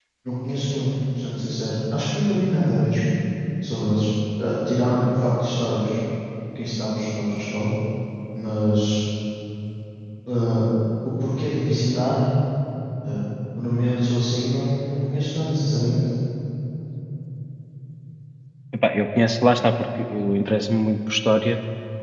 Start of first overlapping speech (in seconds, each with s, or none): none